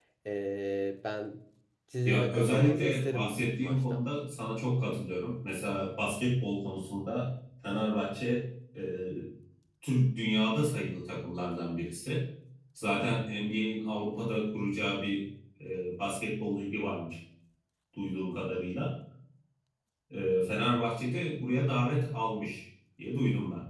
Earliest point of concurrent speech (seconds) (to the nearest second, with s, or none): 2 s